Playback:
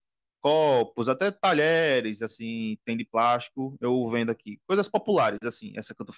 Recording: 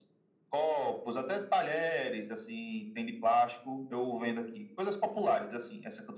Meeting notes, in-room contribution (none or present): none